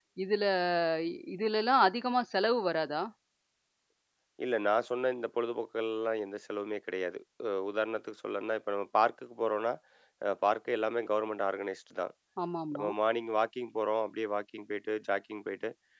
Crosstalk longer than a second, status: none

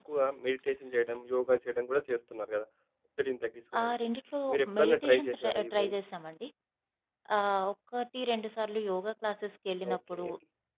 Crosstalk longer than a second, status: present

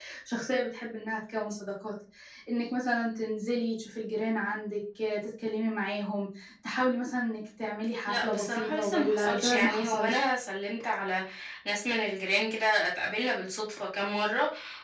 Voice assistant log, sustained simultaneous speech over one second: present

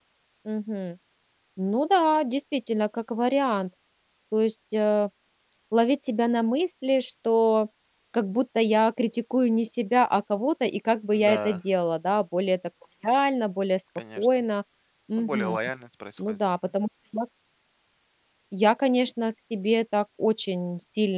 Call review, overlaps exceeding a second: none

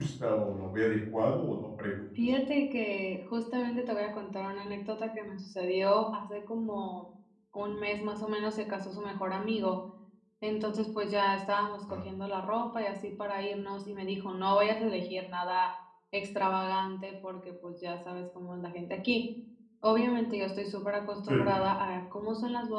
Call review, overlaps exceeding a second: none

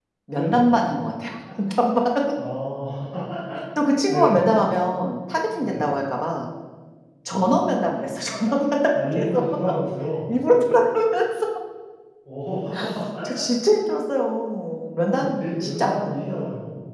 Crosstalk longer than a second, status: present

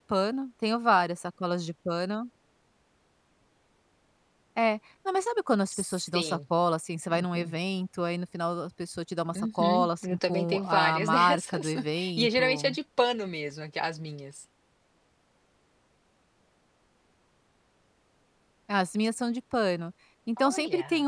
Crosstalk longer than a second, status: present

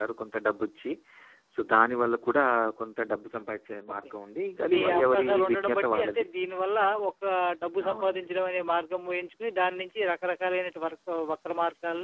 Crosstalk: present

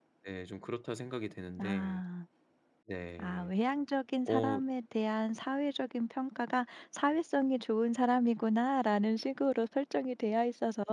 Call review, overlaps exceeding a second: none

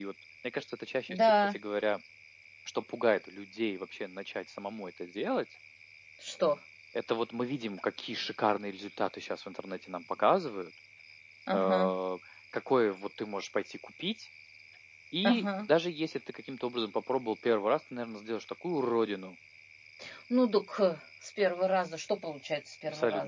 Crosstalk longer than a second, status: none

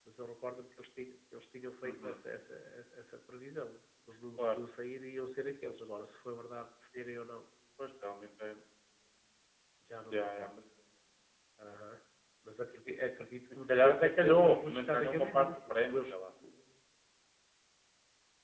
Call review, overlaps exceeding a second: present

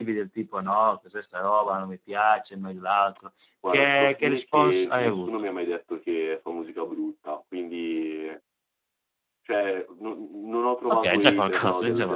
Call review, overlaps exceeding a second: present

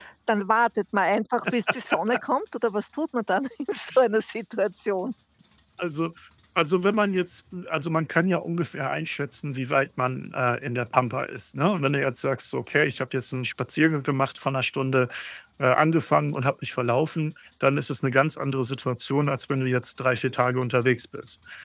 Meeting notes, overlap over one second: none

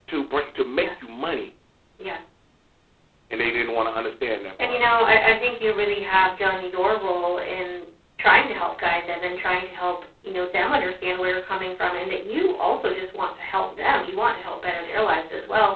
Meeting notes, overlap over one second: none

